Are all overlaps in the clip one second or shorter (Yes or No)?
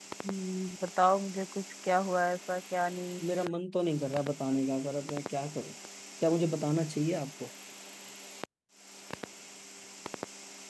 Yes